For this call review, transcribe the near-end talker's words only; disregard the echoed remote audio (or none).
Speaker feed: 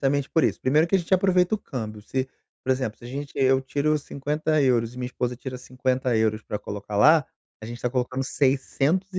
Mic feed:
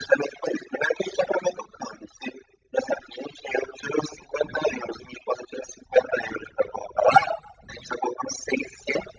none